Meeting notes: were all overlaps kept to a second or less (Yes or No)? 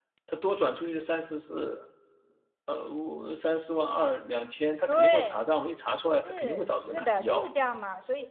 No